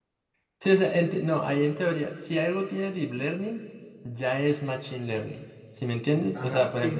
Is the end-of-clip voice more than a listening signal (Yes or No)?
Yes